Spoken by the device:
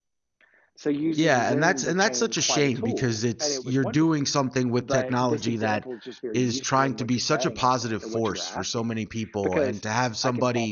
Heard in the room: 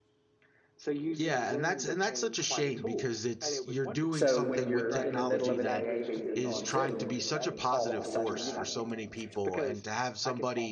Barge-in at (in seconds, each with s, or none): 4.1 s